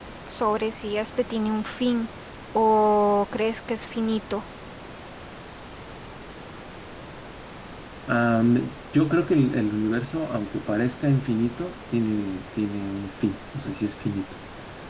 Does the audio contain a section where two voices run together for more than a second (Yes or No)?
No